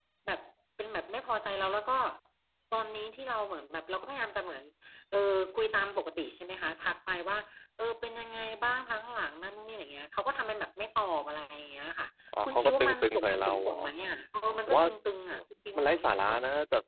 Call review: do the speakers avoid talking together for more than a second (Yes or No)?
No